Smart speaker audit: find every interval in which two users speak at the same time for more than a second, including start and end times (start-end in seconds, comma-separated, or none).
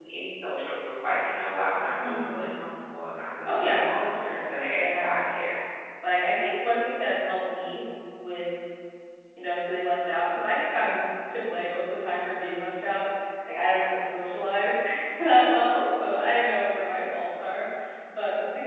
3.4-5.2